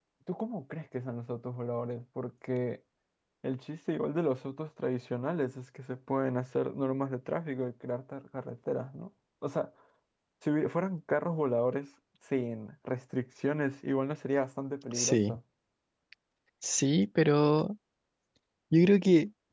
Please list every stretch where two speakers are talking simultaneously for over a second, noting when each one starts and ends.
none

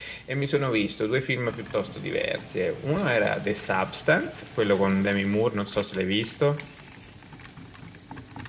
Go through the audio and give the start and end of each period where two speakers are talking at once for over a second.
none

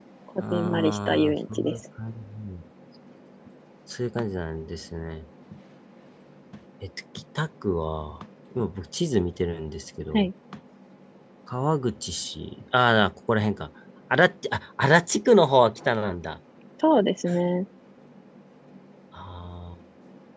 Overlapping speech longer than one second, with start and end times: 0.5-1.8

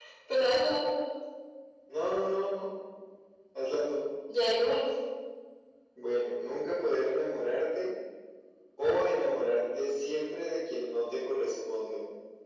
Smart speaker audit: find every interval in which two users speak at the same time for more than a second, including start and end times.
none

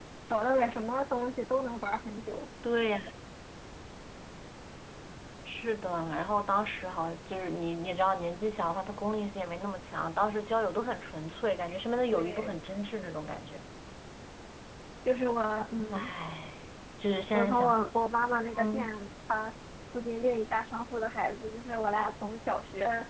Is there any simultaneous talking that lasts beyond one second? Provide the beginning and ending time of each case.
none

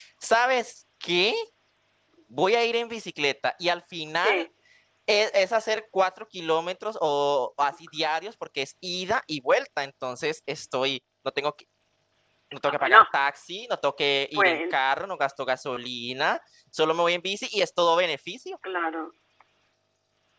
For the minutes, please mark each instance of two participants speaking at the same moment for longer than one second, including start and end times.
none

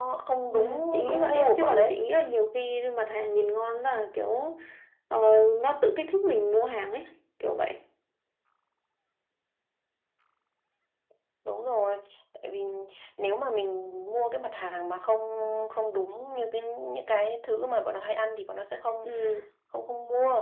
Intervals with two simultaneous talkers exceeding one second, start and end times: 0.5-2.0

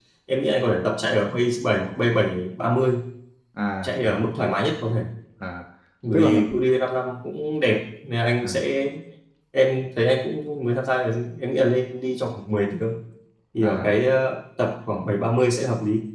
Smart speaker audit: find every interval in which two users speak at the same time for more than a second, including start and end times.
none

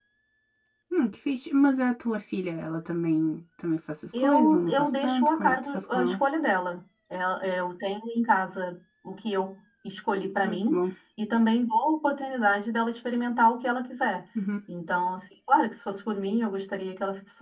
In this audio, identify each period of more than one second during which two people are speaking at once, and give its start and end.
4.2-6.2

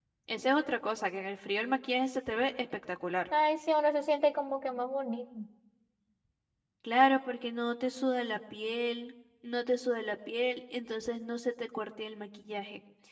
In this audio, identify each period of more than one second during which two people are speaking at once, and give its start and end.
none

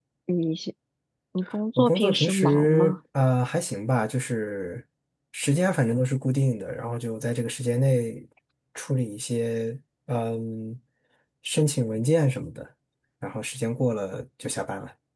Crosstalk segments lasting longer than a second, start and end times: 1.8-3.0

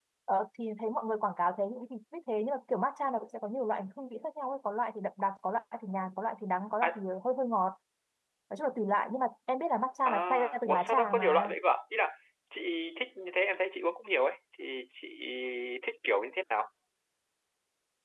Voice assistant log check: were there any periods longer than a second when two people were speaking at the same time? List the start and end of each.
10.0-11.5

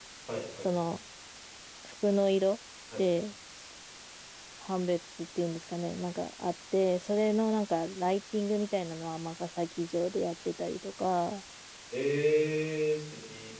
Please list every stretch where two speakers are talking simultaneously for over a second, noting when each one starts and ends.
none

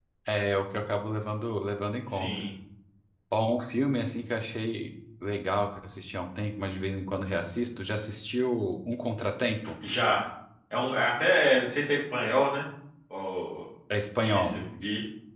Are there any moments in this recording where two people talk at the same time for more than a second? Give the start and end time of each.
none

